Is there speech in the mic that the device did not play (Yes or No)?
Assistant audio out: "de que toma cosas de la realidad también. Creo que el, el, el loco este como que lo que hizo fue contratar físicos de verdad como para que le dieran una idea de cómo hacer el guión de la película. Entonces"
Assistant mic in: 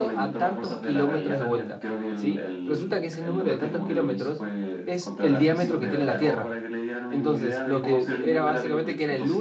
Yes